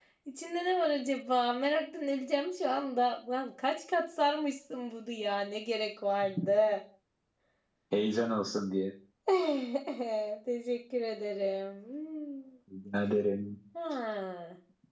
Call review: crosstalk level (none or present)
none